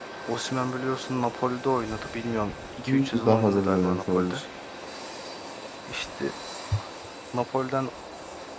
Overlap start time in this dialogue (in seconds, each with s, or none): 2.8 s